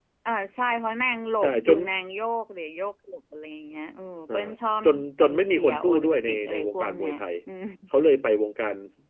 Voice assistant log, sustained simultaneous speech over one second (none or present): present